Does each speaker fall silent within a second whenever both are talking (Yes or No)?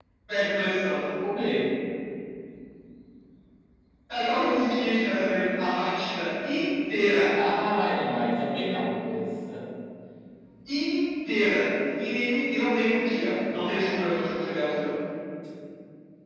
No